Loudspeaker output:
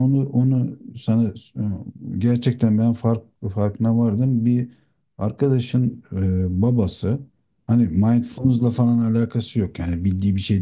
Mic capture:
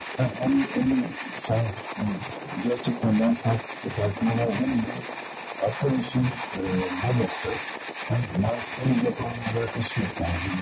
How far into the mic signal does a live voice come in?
none

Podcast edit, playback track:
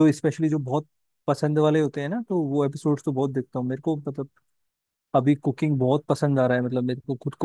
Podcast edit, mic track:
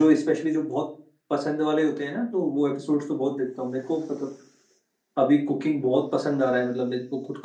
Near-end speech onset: none

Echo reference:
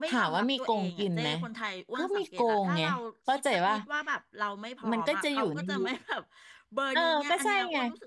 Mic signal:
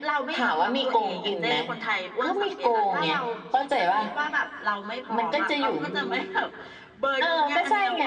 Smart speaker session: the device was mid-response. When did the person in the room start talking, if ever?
none

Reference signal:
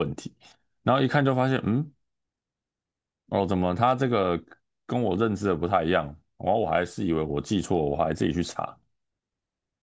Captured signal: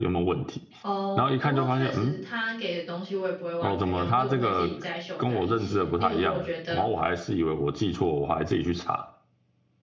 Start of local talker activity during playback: 0.8 s

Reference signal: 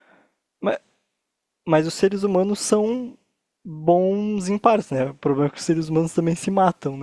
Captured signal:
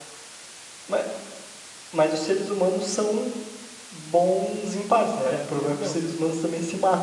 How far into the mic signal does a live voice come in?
5.2 s

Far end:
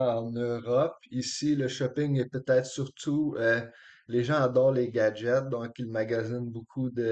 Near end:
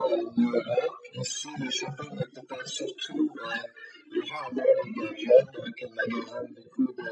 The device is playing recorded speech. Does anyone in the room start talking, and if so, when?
none

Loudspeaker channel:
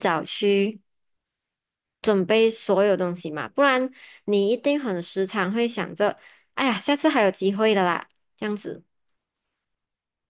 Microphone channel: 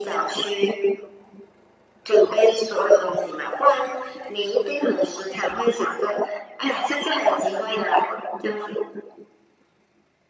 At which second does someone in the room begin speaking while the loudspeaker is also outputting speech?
none

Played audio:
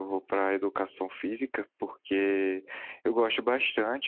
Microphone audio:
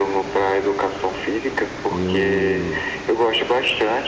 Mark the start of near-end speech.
1.9 s

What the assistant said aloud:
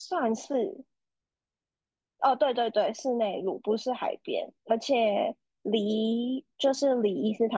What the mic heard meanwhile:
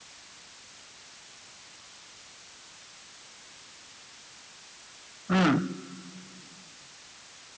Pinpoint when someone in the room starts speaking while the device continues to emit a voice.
5.3 s

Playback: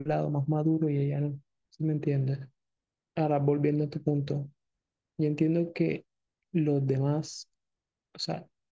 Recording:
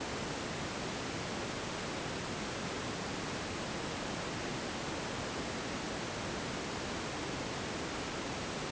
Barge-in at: none

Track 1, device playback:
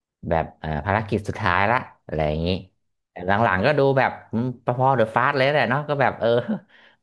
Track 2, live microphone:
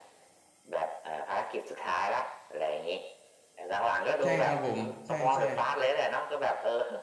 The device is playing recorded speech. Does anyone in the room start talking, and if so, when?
4.2 s

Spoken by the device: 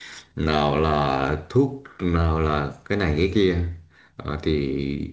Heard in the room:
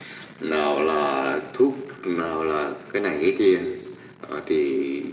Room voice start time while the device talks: none

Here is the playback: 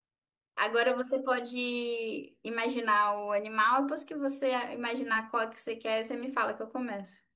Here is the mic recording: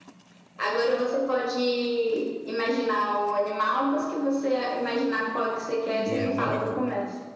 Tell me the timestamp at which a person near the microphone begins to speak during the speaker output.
5.8 s

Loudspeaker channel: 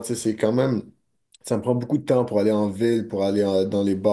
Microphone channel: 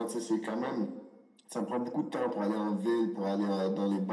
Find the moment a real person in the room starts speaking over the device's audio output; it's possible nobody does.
none

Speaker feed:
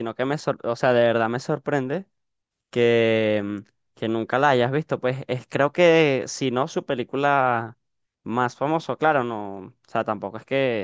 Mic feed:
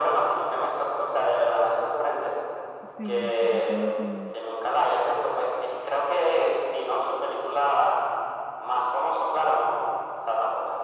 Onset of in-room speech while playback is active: 2.8 s

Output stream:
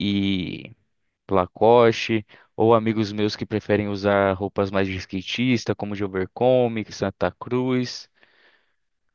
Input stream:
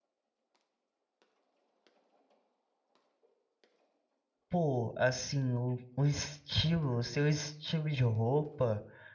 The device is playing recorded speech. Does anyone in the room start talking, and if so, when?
4.5 s

